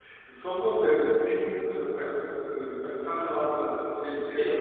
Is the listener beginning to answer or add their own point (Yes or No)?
Yes